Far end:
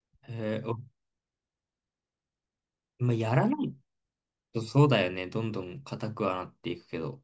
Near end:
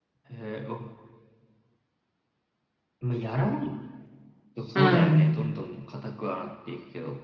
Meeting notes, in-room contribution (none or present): present